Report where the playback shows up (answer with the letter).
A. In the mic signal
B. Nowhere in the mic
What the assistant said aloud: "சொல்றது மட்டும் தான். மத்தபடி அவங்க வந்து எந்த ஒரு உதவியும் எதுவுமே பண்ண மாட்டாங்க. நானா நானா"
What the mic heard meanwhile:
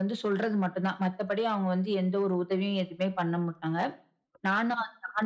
A